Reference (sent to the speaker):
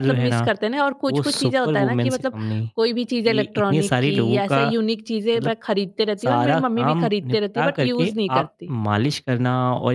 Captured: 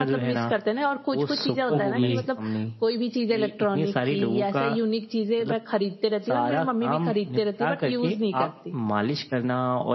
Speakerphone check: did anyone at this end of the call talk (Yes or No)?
Yes